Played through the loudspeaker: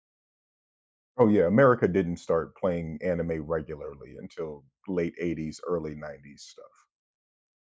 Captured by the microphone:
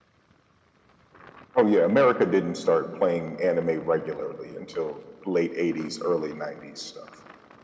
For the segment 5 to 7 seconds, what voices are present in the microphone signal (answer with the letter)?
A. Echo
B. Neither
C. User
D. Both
A